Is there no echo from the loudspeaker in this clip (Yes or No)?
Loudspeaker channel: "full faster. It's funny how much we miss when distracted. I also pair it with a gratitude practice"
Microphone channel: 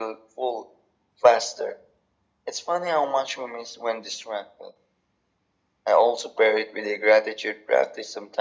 No